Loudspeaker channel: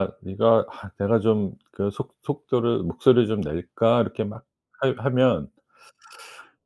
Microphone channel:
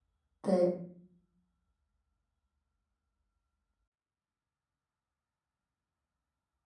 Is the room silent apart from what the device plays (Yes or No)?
No